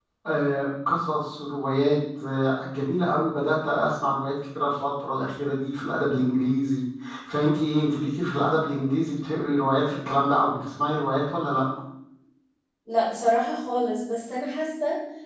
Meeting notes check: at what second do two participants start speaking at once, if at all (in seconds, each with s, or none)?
none